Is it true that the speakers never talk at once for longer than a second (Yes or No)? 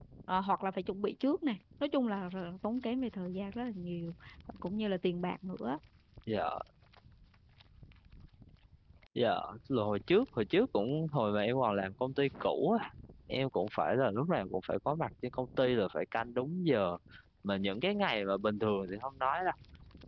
Yes